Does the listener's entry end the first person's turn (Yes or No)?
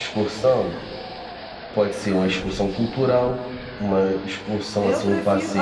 Yes